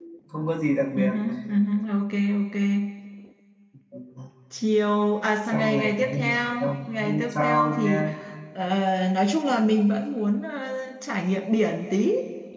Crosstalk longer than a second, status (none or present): present